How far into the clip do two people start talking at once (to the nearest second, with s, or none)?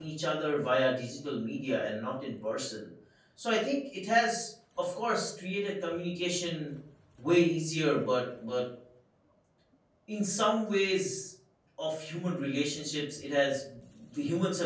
none